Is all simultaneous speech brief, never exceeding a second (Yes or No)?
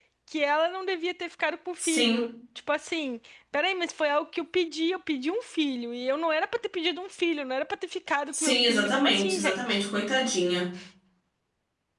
No